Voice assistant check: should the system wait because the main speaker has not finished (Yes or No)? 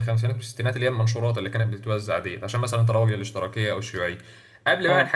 Yes